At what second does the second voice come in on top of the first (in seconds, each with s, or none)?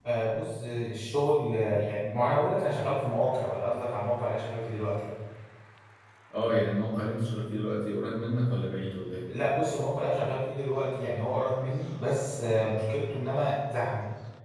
none